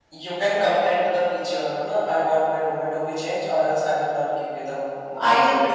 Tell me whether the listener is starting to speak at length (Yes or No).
Yes